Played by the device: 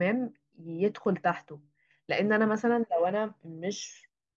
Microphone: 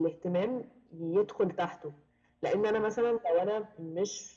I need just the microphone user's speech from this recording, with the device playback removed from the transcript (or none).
none